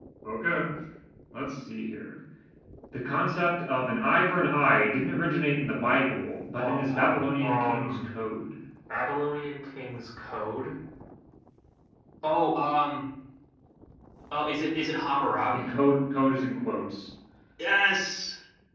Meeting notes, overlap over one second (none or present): present